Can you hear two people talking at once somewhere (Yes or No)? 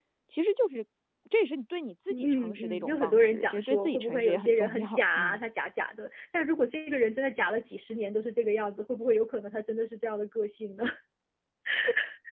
Yes